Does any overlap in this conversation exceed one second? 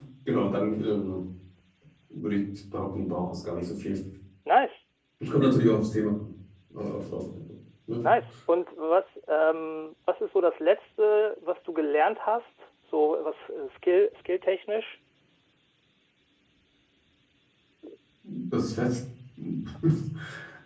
No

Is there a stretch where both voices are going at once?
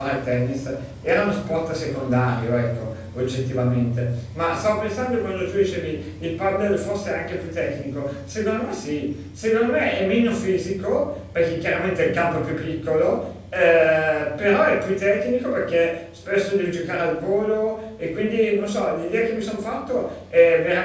No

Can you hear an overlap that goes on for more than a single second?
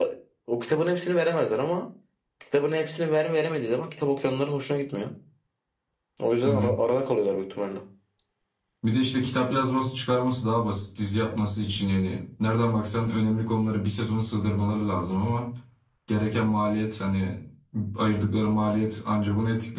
No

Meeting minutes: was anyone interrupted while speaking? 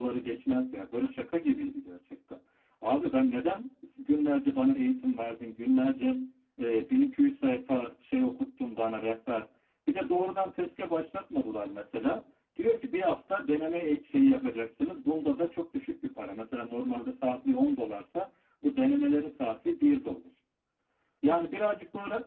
No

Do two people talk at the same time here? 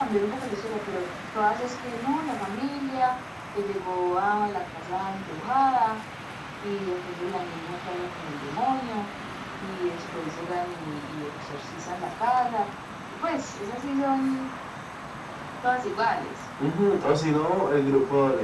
No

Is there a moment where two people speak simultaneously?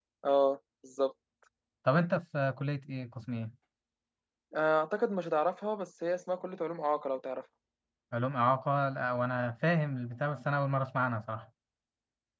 No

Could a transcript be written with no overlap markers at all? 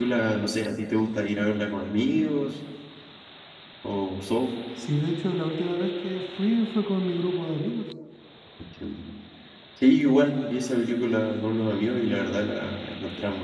Yes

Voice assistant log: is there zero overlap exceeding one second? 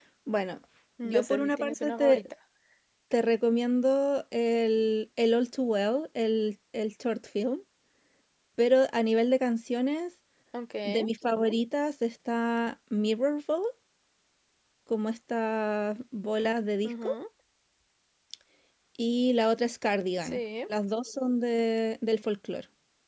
No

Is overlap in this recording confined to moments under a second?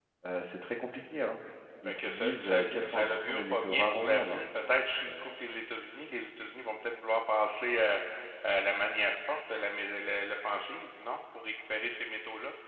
No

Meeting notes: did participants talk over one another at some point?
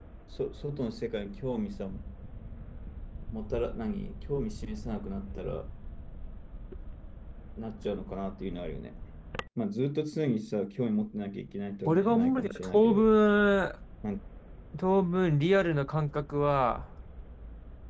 Yes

